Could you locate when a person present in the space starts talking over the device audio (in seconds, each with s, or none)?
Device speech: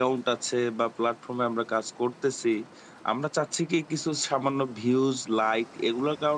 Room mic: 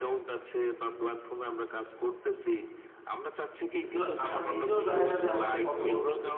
3.8 s